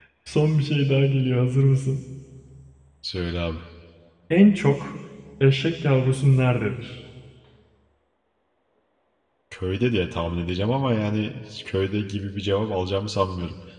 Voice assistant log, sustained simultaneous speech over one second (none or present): none